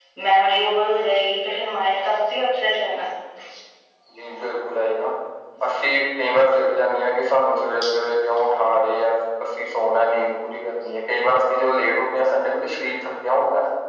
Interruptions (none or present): none